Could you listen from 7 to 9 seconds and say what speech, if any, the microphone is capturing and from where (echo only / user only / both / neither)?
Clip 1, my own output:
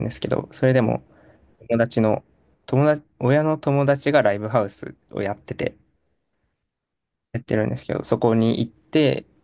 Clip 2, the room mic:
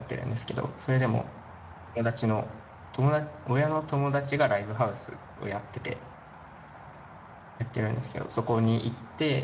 echo only